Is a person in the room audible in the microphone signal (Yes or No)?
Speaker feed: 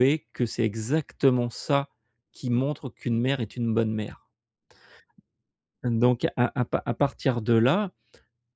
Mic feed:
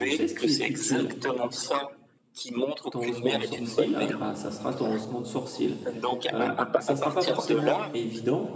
Yes